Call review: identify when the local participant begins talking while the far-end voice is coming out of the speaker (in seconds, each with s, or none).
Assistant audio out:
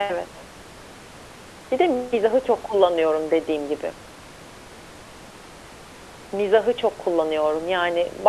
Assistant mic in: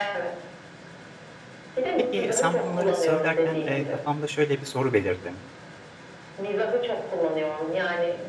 1.9 s